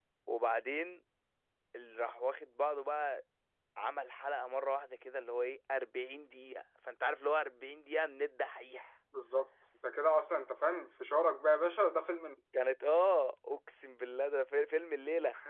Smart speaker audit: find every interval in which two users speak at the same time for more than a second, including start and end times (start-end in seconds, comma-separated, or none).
none